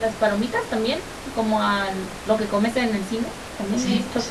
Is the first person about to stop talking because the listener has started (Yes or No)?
Yes